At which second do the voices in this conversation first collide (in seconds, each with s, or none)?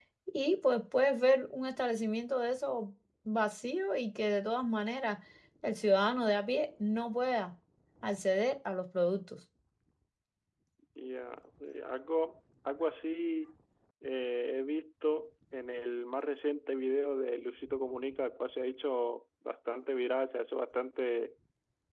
none